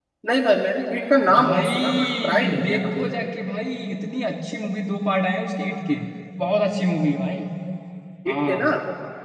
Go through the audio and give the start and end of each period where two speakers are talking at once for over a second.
1.4-3.0

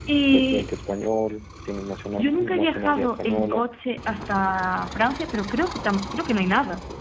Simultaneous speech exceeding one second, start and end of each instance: 2.2-3.7

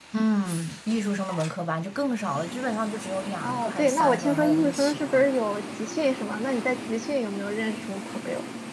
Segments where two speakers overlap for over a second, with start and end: 3.4-5.3

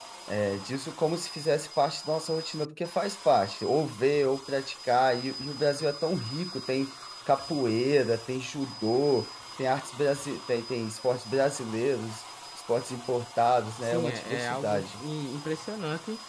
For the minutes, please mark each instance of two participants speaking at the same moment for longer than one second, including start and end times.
13.8-15.0

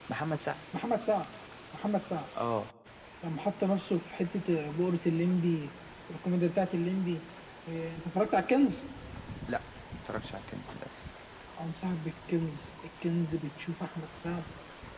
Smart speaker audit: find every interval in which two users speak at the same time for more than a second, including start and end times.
none

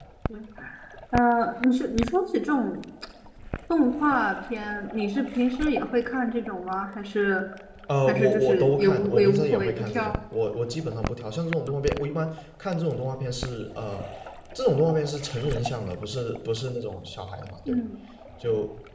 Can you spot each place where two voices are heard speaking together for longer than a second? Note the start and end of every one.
8.1-10.2

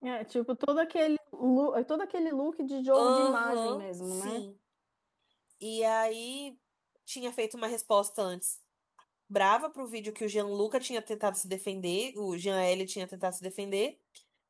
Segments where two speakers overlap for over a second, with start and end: 3.0-4.4

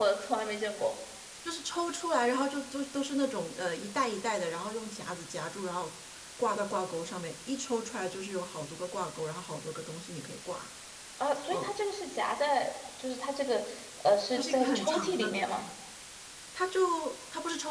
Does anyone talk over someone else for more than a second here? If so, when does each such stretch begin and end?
14.4-15.6

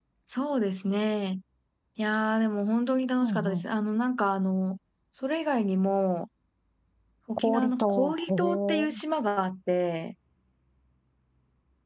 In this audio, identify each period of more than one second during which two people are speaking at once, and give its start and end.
7.4-9.0

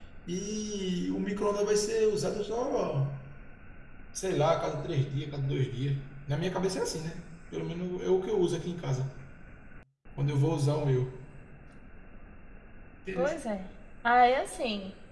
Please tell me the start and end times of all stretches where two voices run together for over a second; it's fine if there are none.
none

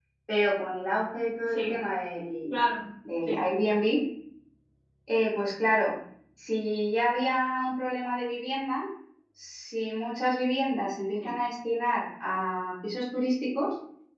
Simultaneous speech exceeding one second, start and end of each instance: none

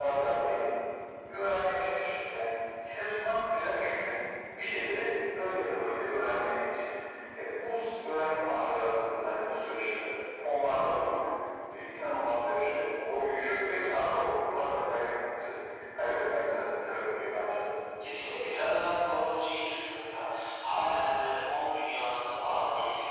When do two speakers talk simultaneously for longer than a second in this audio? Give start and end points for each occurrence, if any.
none

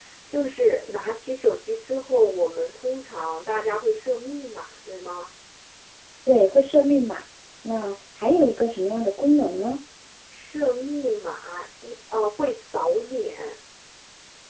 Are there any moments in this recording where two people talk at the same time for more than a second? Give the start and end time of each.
none

